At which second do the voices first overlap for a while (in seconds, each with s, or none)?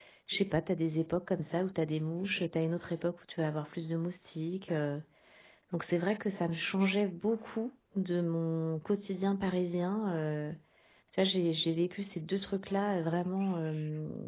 none